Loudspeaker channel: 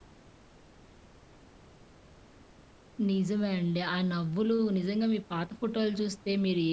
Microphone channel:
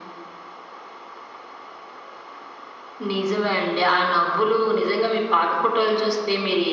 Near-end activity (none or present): none